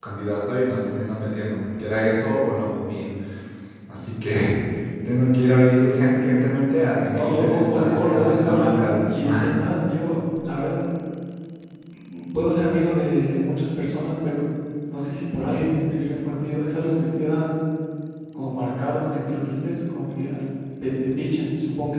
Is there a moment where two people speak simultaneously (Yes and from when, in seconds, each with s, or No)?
Yes, from 7.1 s